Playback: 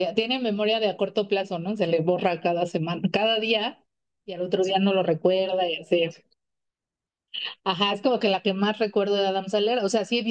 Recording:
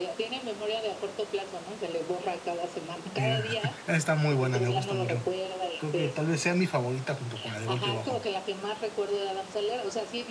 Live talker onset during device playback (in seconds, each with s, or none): 3.1 s